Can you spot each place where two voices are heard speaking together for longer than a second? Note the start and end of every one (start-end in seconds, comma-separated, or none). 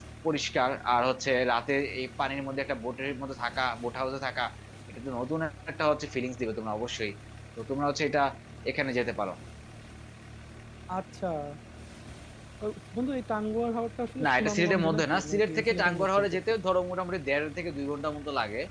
14.2-16.4